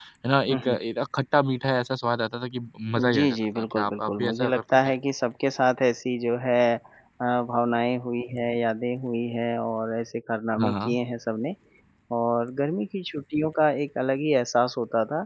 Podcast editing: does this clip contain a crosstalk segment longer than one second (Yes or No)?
Yes